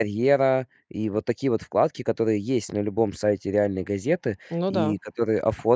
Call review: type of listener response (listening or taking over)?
listening